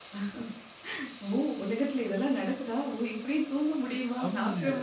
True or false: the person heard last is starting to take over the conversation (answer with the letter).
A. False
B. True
B